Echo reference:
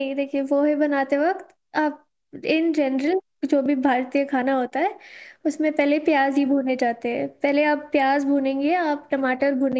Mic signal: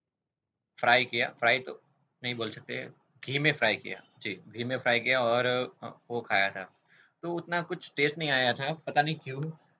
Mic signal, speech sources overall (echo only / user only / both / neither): user only